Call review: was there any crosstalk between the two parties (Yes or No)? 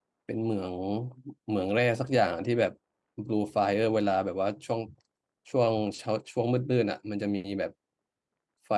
No